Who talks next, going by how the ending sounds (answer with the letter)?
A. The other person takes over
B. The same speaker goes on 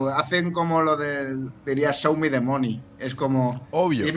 B